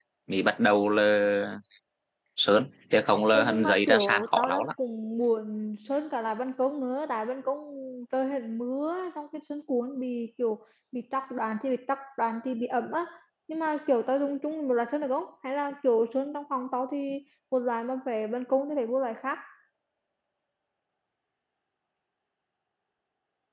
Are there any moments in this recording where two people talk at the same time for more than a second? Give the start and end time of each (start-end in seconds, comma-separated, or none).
3.3-4.7